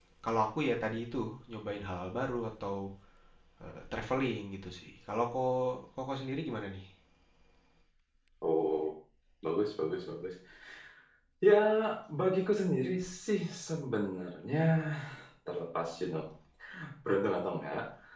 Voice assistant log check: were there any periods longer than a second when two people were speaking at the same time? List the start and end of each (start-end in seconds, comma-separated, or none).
none